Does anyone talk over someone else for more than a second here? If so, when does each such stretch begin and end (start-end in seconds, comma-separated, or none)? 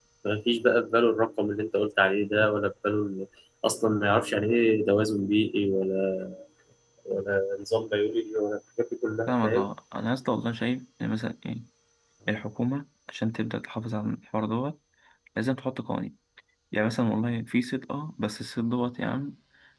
none